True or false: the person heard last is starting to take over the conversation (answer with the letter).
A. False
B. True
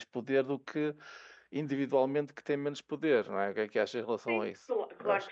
B